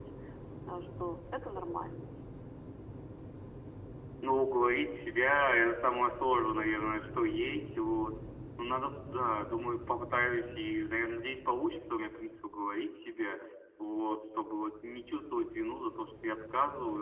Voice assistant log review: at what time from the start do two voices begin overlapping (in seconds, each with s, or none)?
none